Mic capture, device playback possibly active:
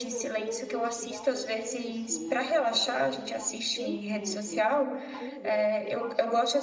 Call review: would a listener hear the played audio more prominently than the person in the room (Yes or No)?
No